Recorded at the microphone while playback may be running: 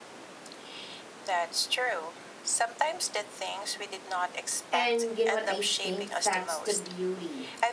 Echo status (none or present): present